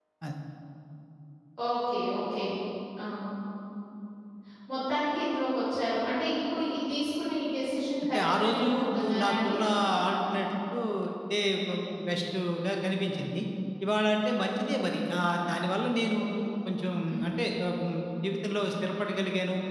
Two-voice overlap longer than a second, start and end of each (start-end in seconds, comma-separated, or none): 8.1-9.6